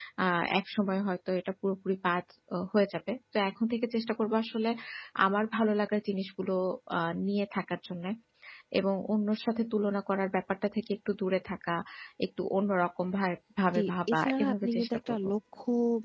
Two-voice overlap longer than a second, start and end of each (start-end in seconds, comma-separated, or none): 13.8-15.2